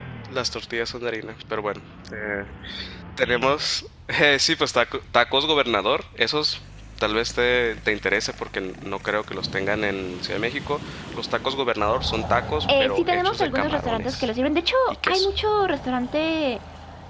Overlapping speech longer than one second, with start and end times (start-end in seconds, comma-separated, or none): 12.8-14.3